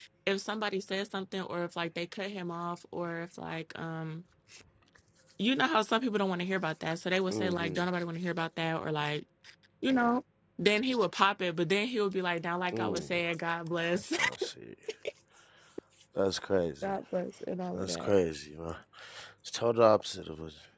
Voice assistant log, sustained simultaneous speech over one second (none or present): none